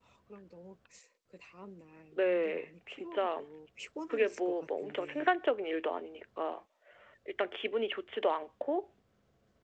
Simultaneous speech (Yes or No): Yes